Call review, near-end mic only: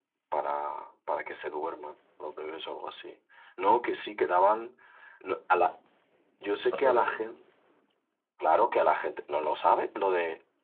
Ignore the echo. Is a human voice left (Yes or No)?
Yes